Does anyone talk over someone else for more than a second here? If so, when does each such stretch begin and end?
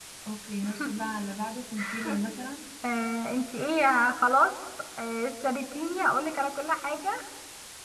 none

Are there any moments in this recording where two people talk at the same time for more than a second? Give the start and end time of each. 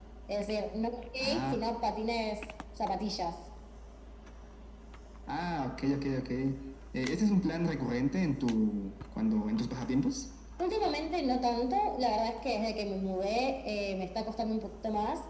none

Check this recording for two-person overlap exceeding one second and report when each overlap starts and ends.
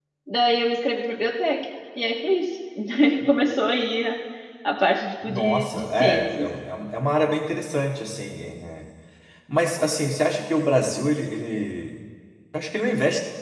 5.2-6.5

